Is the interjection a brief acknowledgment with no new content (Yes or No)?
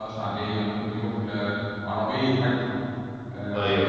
Yes